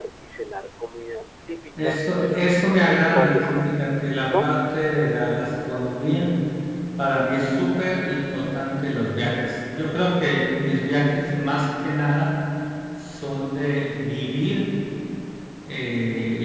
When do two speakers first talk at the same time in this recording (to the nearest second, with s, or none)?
2 s